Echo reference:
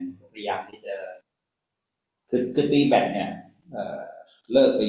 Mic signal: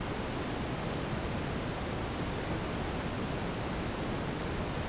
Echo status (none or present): none